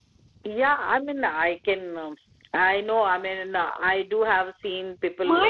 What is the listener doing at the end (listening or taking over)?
taking over